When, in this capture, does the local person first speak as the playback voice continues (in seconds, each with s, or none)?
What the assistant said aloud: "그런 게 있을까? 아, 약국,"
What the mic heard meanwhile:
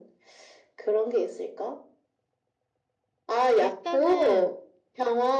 3.6 s